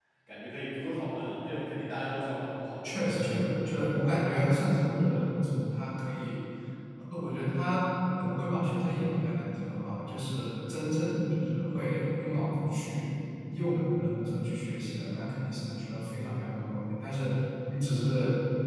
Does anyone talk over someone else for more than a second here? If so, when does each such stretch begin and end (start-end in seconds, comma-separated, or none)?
none